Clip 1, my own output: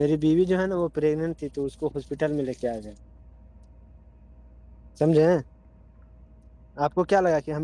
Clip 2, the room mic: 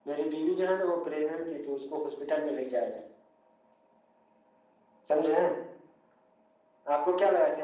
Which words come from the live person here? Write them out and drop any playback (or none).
none